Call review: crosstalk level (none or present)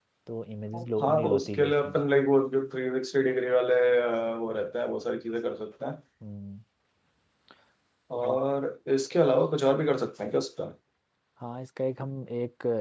present